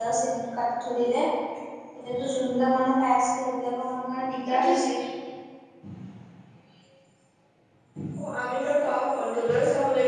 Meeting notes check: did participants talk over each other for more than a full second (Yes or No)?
No